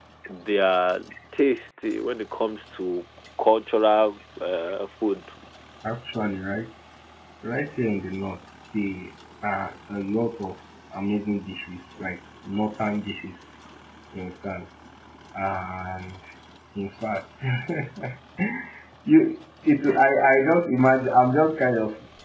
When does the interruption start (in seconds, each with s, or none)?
none